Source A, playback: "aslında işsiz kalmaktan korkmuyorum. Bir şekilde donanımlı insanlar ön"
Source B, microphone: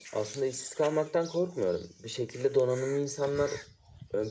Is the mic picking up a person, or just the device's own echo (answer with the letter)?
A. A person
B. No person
B